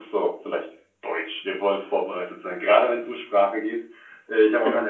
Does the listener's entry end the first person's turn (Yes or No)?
No